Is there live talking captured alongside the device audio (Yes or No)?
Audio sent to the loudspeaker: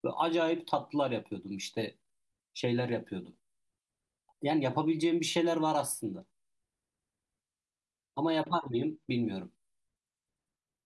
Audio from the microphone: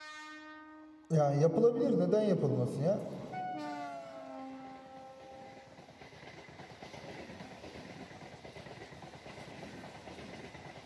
Yes